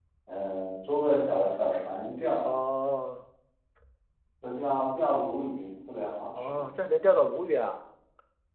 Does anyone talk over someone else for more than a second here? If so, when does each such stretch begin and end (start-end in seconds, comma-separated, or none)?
none